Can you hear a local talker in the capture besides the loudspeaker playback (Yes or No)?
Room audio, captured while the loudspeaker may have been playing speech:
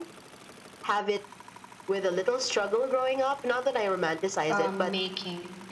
Yes